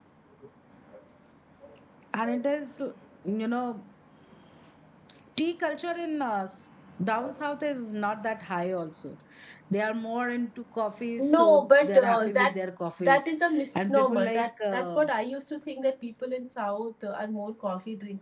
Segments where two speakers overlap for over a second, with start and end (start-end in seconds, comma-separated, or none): 11.2-12.6, 13.8-15.0